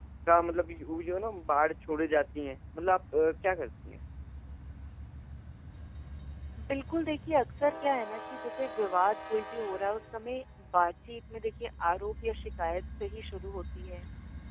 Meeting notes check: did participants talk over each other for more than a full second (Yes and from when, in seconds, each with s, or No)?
No